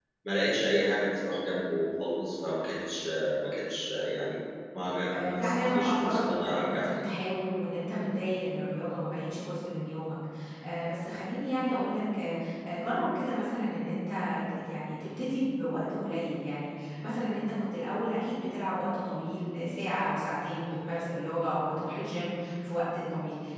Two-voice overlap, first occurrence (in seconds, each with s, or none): 5.1 s